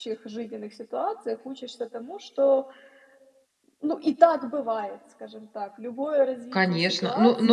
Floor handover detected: Yes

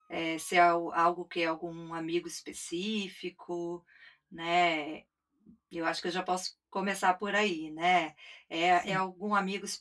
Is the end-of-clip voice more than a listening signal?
No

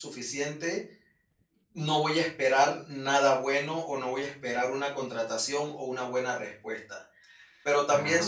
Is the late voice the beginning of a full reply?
No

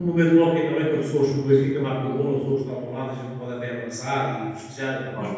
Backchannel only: Yes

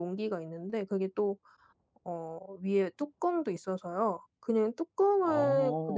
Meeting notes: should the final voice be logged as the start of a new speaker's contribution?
No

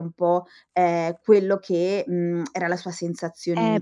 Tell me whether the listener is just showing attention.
No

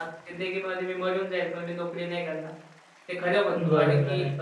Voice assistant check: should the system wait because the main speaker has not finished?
Yes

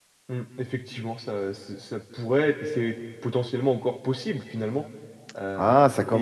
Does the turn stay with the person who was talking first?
No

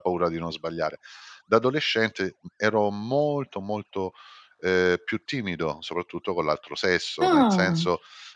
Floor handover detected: No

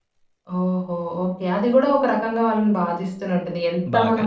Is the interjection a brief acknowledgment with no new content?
Yes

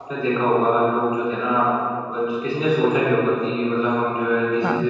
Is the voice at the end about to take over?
No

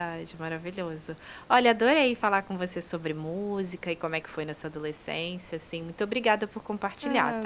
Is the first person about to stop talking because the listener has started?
Yes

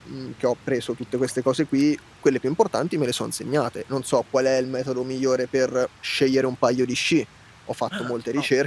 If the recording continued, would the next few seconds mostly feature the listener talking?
No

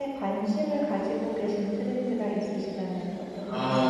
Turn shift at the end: Yes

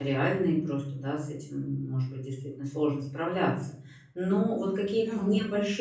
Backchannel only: Yes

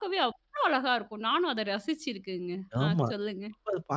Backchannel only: No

